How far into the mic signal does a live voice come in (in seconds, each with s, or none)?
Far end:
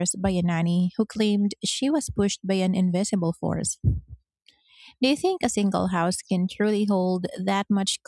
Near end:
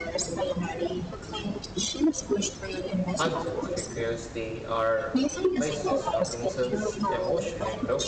3.2 s